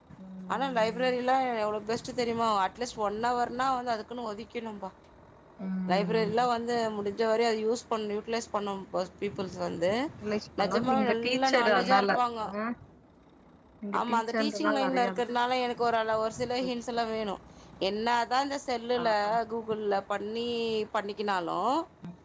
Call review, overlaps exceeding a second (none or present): present